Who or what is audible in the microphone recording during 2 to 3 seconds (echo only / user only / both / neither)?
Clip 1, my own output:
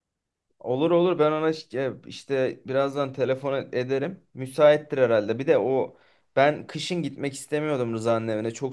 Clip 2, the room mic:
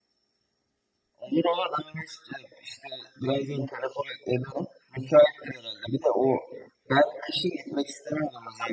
echo only